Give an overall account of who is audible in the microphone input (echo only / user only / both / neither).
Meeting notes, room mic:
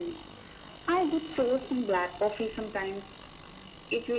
echo only